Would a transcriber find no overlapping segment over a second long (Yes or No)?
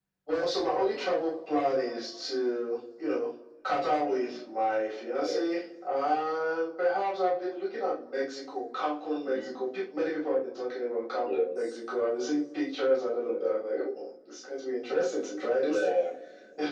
Yes